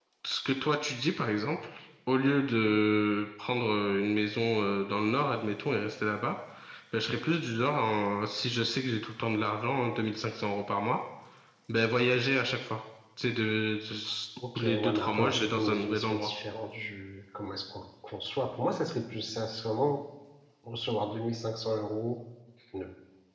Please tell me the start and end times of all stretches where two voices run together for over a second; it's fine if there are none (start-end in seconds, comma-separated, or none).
14.6-16.3